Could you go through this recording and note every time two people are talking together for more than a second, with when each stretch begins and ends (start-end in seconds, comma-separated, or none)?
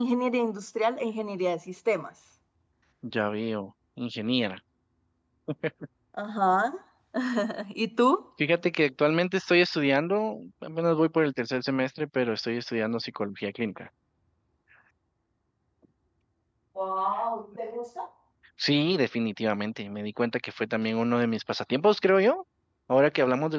none